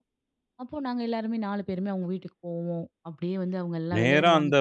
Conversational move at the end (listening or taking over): taking over